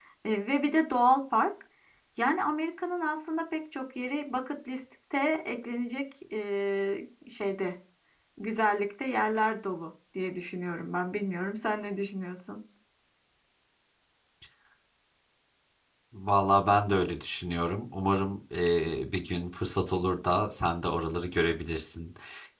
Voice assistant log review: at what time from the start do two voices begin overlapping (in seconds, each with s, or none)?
none